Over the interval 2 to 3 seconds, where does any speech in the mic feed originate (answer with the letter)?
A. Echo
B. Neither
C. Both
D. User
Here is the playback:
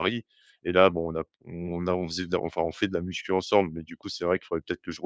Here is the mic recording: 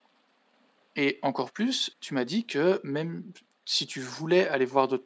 D